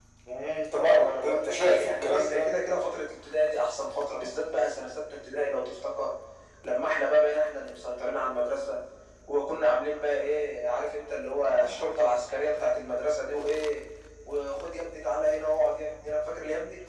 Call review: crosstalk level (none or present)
present